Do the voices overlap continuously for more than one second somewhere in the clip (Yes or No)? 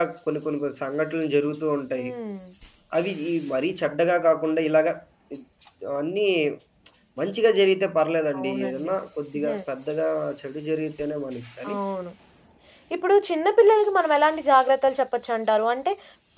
No